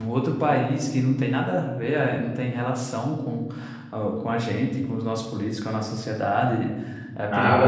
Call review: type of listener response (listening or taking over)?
taking over